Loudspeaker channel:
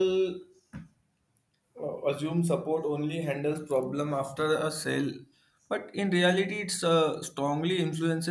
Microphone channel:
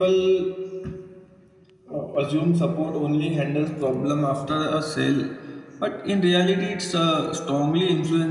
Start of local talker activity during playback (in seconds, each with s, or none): none